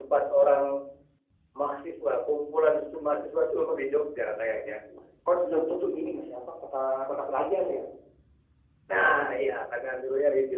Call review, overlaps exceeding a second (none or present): none